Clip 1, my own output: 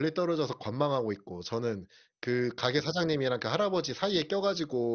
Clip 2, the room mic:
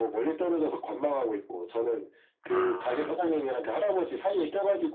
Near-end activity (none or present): present